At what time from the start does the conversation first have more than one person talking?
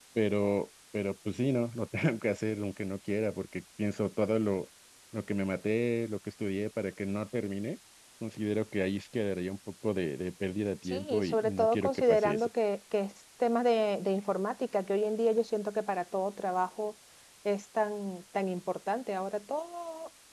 10.9 s

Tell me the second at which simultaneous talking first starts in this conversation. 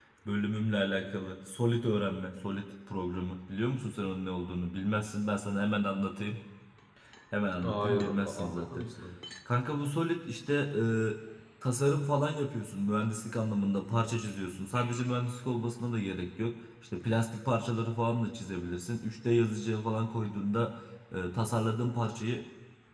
7.6 s

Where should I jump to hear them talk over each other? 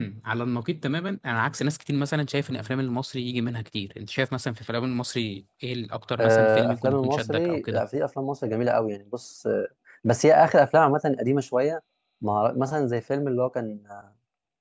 6.2 s

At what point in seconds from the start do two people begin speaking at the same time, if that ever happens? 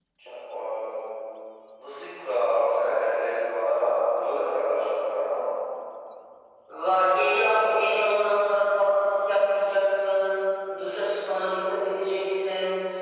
none

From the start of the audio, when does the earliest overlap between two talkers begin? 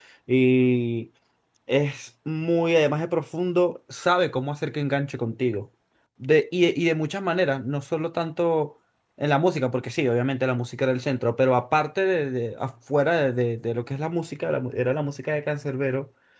none

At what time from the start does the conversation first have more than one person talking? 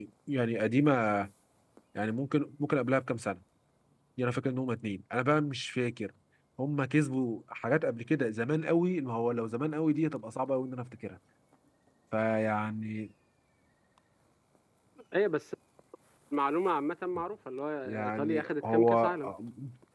17.9 s

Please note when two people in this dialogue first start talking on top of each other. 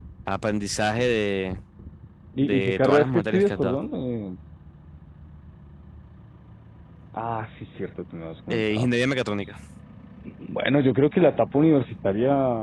2.4 s

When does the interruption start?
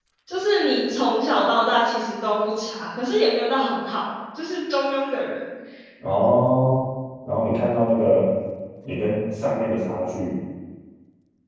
none

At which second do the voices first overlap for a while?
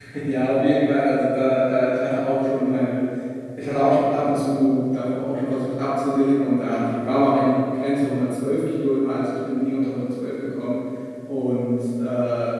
none

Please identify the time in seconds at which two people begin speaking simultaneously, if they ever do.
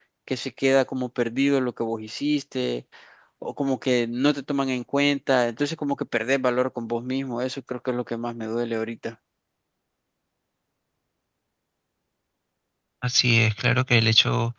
none

